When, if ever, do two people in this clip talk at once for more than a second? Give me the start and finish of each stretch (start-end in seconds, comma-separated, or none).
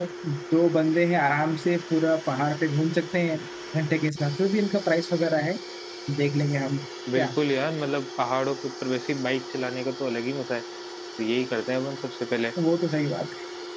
none